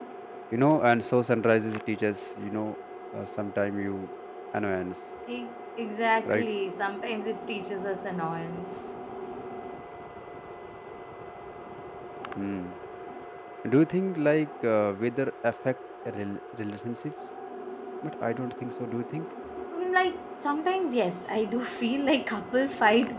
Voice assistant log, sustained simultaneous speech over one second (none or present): none